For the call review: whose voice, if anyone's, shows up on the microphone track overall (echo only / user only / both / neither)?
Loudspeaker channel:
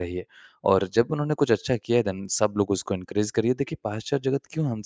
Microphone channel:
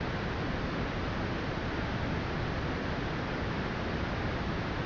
neither